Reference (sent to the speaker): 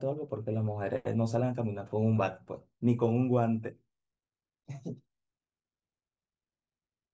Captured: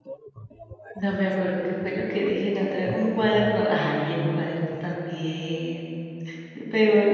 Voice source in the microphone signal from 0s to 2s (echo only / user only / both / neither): both